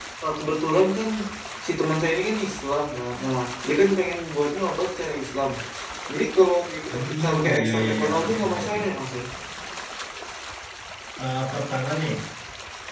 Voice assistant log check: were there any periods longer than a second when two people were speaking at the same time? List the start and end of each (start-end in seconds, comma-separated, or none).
6.9-8.8